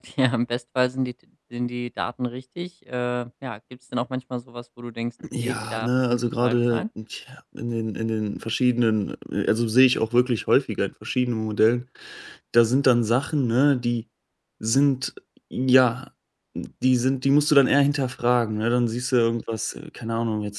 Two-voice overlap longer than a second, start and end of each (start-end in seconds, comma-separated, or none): 5.4-6.8